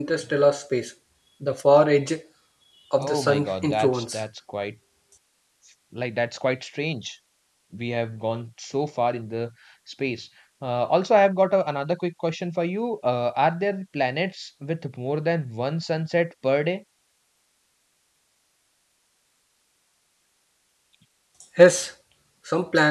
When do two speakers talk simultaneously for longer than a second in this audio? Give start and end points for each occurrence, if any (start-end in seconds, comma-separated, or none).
3.0-4.2